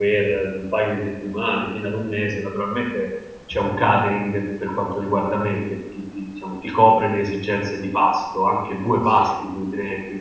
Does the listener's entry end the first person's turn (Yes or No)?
No